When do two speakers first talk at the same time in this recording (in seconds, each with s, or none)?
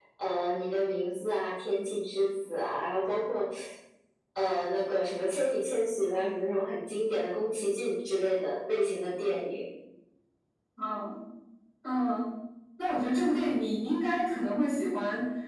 none